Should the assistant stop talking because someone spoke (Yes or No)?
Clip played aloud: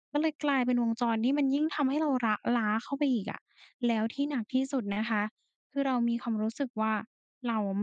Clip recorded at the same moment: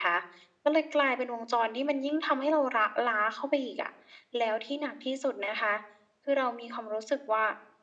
No